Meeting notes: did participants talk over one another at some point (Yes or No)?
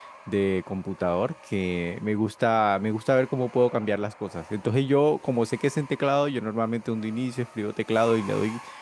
No